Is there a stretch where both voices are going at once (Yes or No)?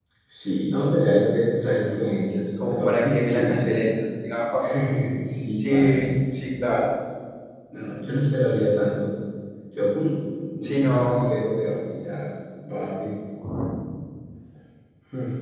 Yes